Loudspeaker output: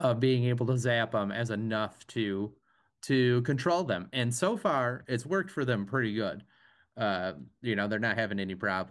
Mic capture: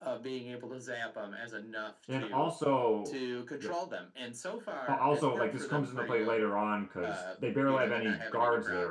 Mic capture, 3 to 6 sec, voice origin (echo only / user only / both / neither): both